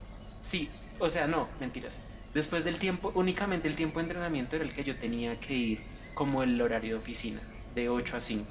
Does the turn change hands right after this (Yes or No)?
No